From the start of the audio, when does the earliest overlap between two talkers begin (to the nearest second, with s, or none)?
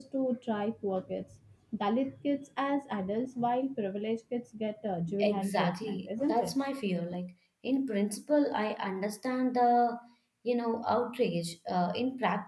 5 s